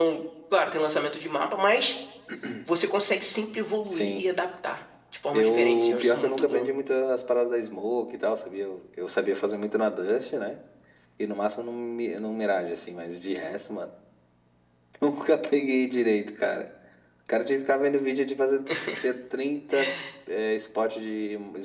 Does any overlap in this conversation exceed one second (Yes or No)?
Yes